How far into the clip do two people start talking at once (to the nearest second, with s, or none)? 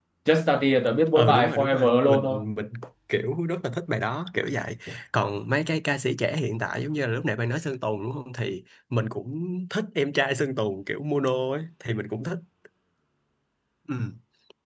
1 s